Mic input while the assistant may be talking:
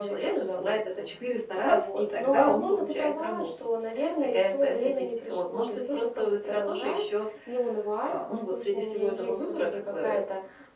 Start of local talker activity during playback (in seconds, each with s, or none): none